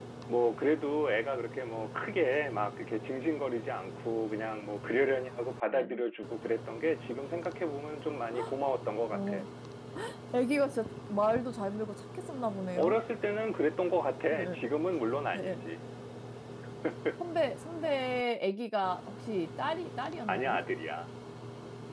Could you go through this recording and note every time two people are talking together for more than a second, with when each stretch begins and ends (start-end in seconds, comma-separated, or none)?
none